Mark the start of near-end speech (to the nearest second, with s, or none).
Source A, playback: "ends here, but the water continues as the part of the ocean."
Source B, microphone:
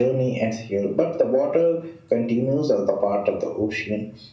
none